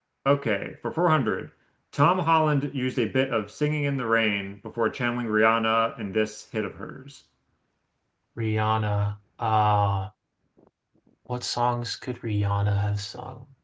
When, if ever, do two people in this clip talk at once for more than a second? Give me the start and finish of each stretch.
none

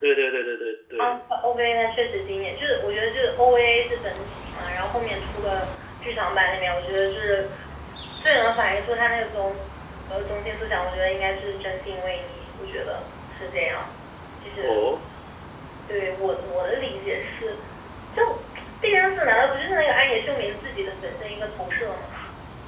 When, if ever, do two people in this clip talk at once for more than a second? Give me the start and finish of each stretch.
none

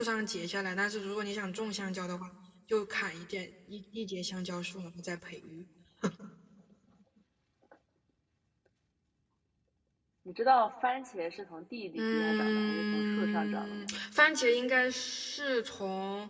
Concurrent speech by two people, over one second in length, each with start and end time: 11.9-13.9

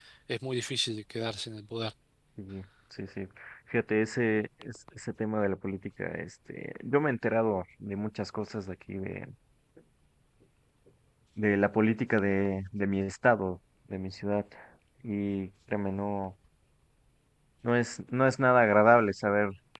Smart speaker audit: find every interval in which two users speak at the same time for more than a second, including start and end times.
none

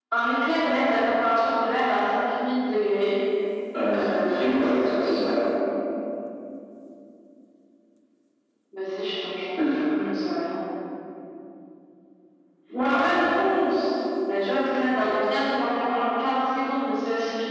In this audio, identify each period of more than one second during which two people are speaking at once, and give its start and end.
3.9-5.2

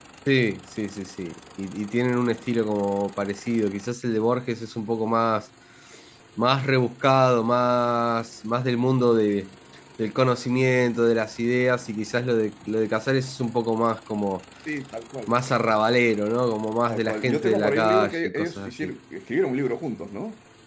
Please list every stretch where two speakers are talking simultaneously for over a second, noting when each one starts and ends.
16.9-18.9

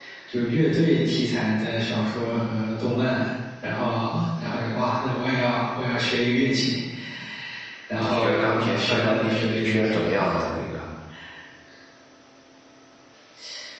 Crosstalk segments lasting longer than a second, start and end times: 8.0-10.2

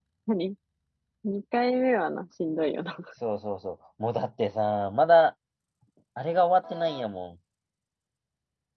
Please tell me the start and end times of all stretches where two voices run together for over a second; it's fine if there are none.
none

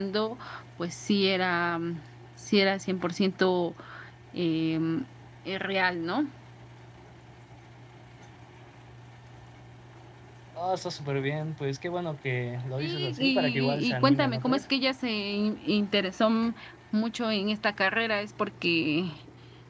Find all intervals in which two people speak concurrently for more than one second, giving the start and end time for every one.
12.8-14.6

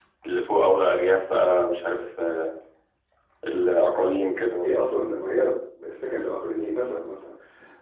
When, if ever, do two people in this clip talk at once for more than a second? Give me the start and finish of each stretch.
none

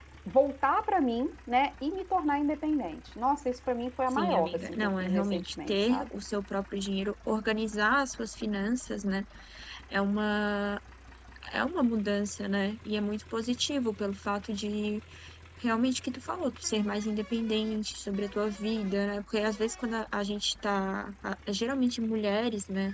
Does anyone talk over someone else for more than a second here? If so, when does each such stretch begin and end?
4.1-6.1

